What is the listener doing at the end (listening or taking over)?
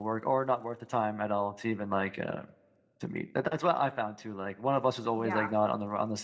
listening